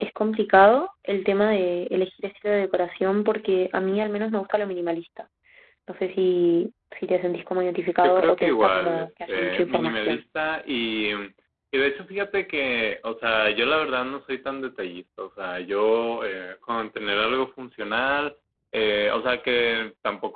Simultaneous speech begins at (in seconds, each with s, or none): 8.0 s